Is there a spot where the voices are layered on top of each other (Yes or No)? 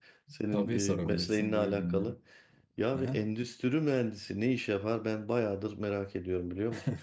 Yes